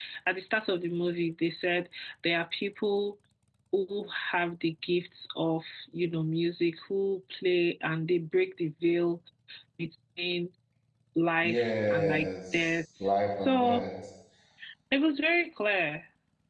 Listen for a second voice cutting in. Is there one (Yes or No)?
Yes